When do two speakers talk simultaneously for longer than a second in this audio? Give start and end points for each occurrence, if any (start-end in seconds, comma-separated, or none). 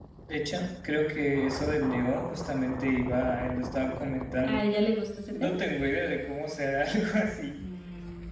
none